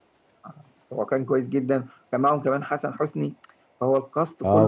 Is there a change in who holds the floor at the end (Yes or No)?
Yes